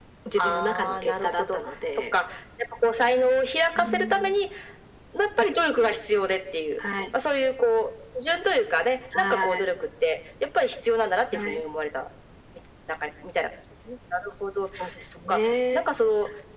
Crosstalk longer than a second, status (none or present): present